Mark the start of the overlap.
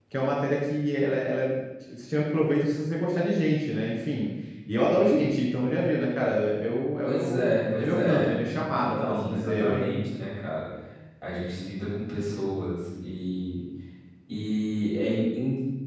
7.0 s

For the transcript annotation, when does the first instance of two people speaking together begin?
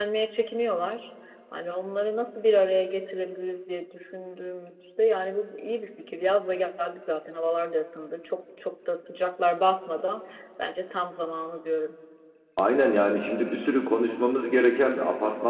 none

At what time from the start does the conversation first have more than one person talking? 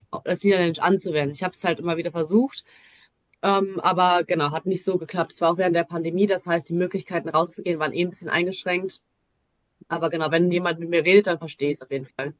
none

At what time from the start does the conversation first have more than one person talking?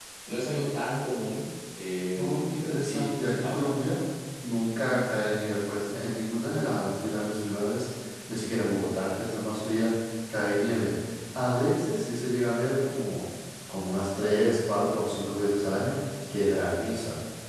2.1 s

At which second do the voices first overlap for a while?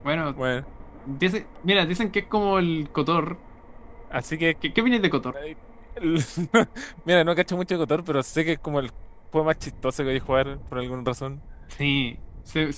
none

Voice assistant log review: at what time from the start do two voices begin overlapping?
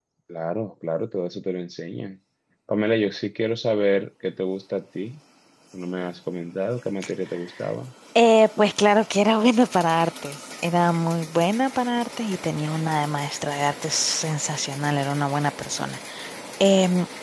none

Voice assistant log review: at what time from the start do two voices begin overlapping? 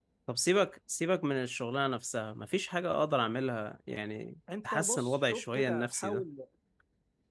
4.5 s

